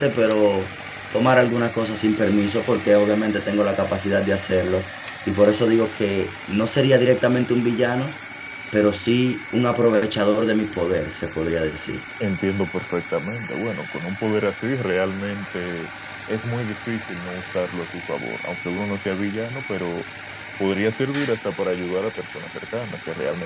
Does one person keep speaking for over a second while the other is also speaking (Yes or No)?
No